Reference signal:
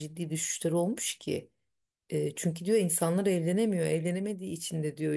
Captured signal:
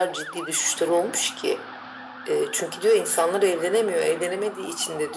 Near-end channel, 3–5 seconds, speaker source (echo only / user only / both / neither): echo only